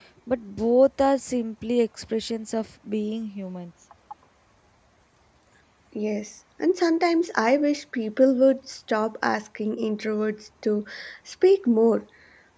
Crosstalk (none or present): none